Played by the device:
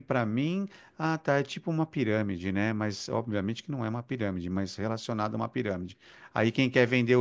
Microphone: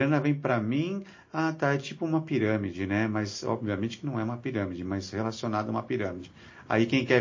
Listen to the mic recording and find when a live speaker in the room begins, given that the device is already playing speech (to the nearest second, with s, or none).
none